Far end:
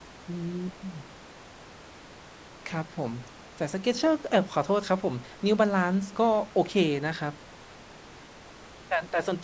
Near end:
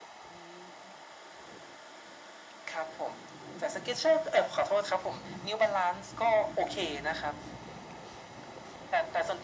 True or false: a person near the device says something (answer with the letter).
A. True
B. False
B